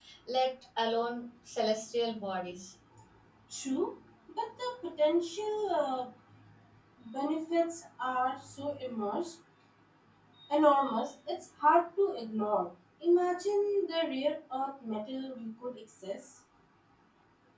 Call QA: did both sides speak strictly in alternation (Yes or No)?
Yes